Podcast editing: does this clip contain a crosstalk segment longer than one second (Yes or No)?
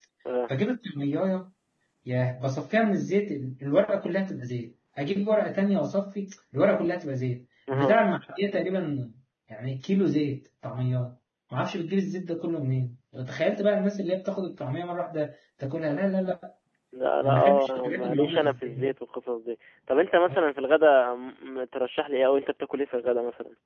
Yes